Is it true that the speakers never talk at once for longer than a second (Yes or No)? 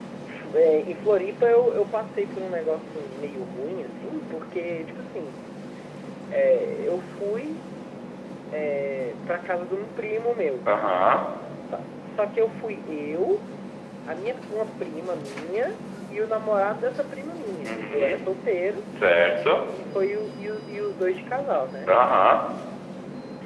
Yes